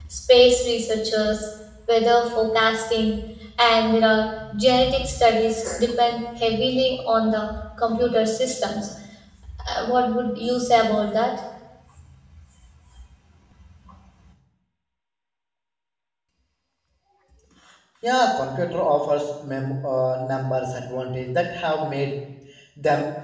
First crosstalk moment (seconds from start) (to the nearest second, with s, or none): none